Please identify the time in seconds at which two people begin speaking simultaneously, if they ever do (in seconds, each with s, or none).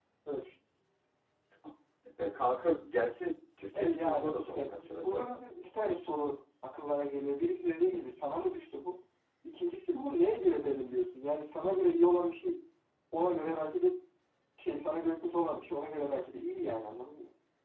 3.7 s